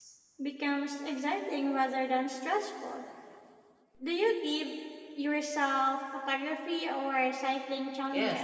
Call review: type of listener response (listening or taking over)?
taking over